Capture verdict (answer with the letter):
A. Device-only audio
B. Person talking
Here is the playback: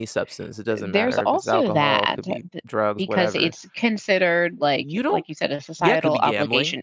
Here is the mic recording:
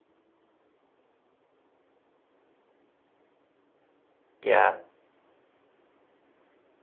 B